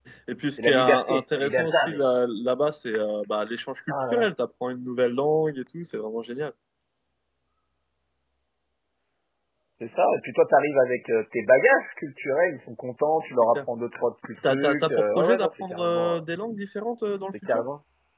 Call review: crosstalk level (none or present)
present